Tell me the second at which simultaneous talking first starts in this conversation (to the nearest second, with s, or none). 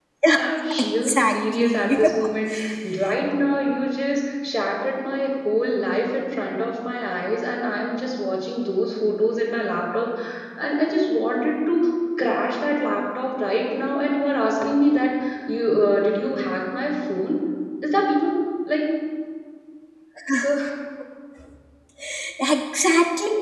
1 s